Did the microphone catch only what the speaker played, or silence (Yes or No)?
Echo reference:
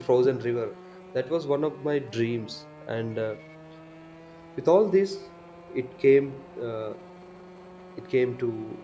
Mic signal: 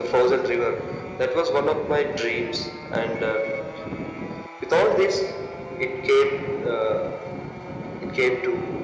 Yes